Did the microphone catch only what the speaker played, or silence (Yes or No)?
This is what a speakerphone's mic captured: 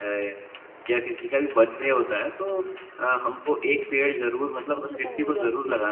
No